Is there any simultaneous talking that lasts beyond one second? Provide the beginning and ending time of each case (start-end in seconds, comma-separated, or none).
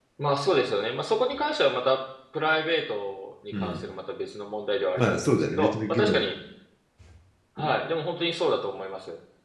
5.0-6.3